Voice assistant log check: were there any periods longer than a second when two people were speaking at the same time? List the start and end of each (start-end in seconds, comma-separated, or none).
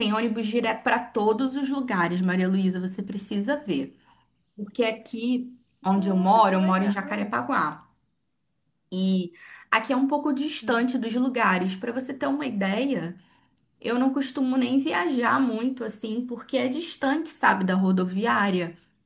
5.9-7.4